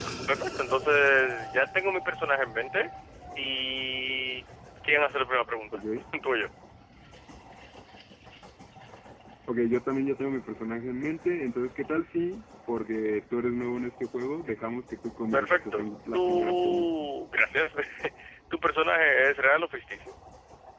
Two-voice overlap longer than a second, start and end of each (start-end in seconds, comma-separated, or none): 15.3-16.9